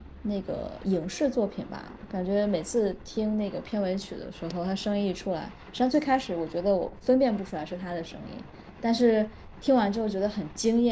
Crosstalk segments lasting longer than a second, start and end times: none

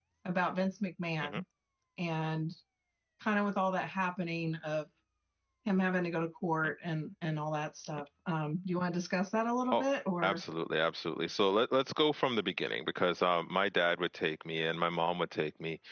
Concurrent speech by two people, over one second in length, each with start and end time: none

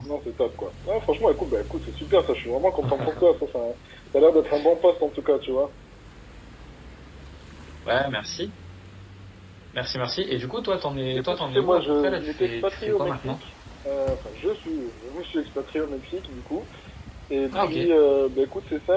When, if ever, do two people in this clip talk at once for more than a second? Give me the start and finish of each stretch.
11.1-13.4

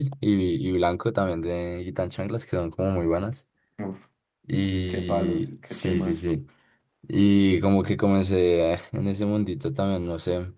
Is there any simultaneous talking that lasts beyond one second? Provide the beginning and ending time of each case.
4.9-6.2

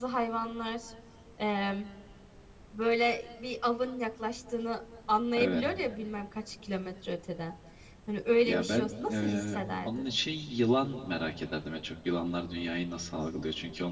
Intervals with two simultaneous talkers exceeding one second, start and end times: 8.5-10.1

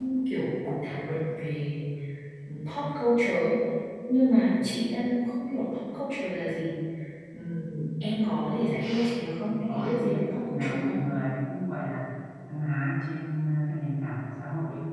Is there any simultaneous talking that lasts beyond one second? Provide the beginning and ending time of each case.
9.7-11.0

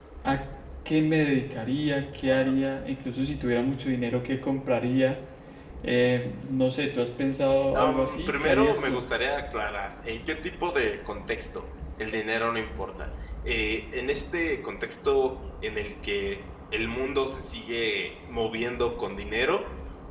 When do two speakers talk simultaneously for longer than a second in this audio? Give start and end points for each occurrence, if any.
7.7-9.0

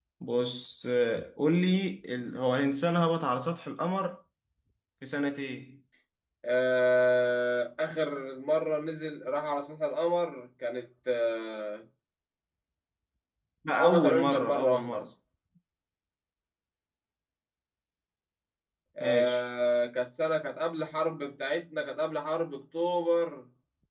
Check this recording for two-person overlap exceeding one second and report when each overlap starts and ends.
13.8-15.1

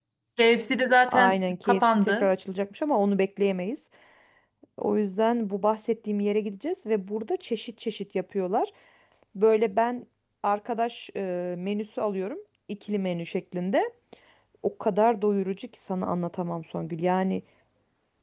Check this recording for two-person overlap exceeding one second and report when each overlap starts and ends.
1.1-2.3

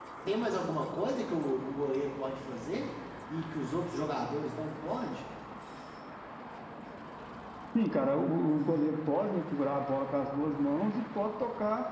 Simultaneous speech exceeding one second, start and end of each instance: none

